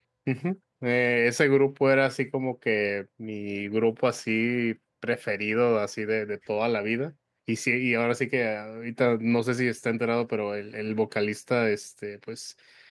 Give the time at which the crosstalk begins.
none

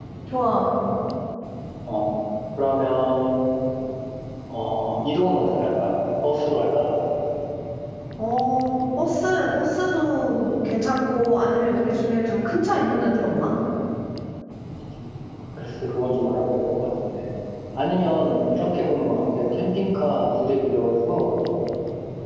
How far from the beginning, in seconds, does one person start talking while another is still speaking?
none

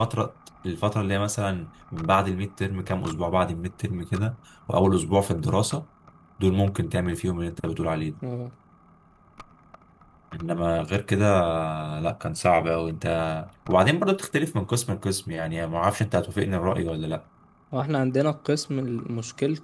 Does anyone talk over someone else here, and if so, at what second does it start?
none

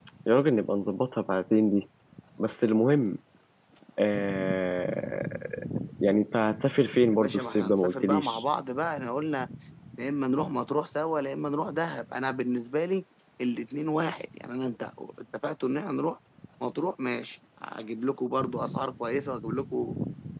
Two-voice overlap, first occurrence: 7.1 s

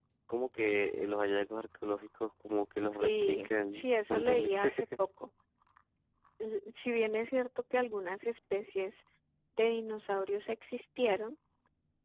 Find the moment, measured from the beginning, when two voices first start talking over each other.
2.8 s

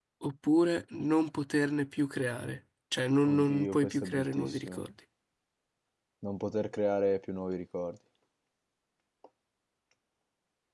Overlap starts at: 3.3 s

